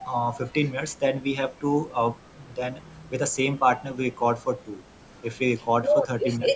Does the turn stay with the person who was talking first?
No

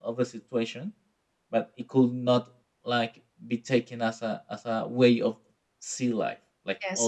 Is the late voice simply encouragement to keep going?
No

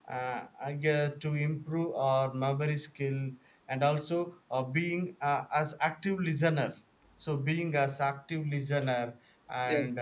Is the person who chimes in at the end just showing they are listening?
Yes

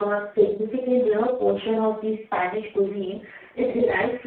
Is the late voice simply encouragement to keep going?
Yes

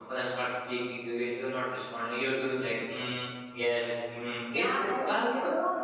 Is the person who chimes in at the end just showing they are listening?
No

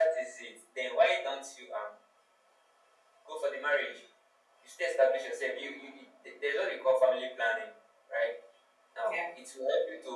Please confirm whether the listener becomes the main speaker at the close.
No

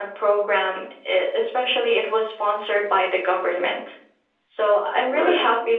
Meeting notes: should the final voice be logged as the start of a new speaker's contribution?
No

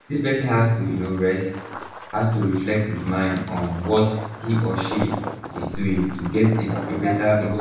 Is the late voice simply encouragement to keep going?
Yes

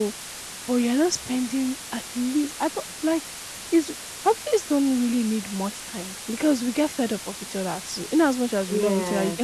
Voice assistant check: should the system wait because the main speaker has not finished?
Yes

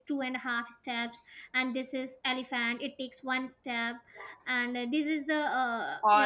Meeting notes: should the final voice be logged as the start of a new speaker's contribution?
No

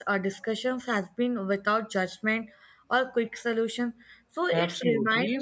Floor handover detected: Yes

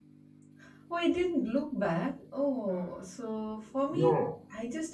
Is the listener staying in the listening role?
Yes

